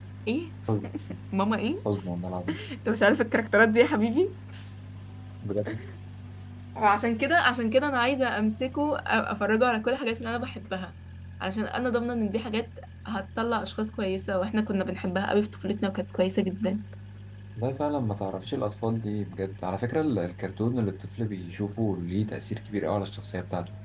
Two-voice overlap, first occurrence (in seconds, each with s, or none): none